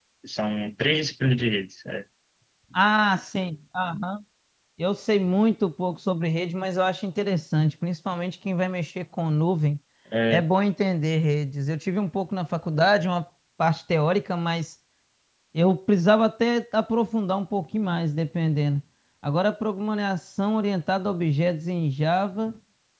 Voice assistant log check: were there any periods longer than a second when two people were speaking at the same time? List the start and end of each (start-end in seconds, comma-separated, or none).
none